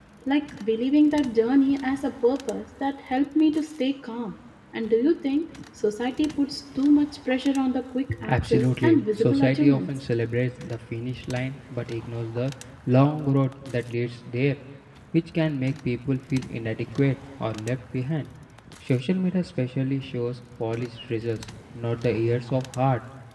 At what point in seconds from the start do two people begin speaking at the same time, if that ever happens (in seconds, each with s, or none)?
8.1 s